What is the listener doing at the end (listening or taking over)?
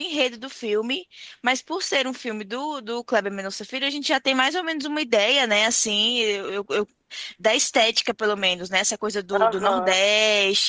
listening